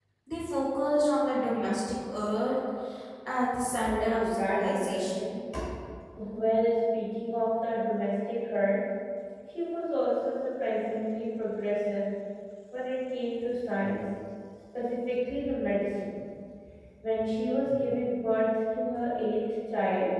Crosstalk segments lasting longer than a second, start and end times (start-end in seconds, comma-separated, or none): 3.8-5.2